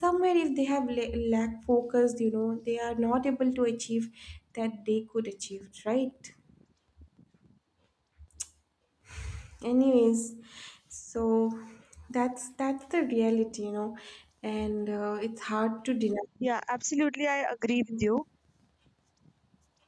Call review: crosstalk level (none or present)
none